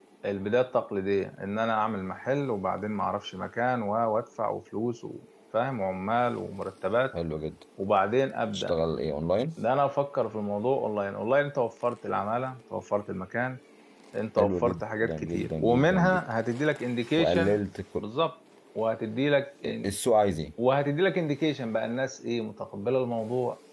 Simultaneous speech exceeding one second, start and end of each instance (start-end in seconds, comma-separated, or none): 14.4-16.2